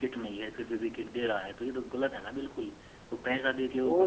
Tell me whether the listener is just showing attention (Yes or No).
No